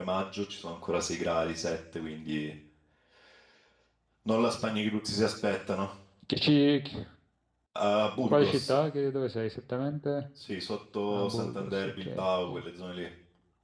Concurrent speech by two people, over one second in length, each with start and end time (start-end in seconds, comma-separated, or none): 11.1-12.6